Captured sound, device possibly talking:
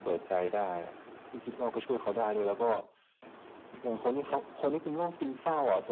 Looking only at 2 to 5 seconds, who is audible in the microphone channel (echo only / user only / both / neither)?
echo only